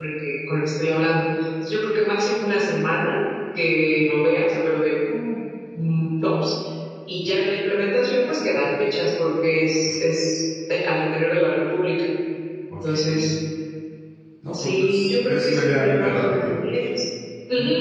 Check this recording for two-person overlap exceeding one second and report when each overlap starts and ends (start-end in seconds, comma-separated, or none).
14.5-16.5